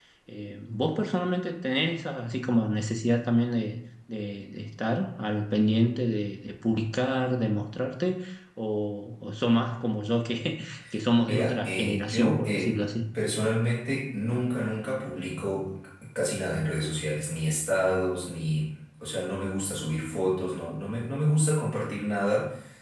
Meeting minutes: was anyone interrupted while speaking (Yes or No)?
Yes